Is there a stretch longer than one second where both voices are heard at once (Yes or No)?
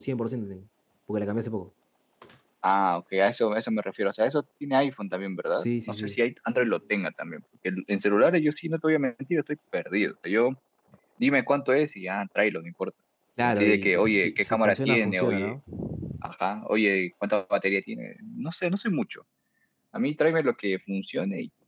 Yes